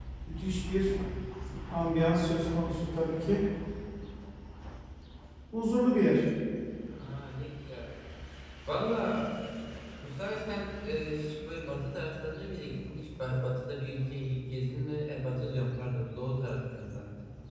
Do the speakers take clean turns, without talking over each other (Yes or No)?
Yes